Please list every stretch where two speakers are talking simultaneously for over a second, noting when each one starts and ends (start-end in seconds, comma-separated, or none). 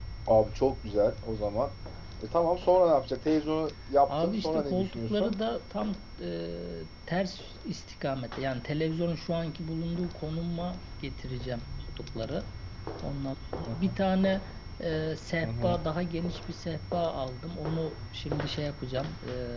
4.1-5.3